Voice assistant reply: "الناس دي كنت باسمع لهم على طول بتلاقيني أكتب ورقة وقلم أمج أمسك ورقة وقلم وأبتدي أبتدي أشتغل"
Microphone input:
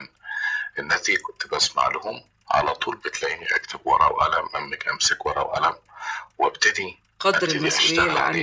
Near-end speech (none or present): present